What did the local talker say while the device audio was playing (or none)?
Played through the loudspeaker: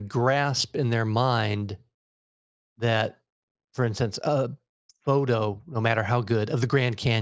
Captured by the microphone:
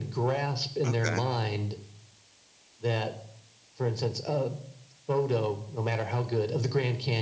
Okay.